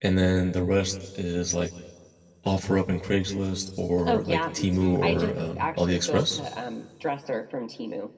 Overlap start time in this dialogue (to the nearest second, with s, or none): 4 s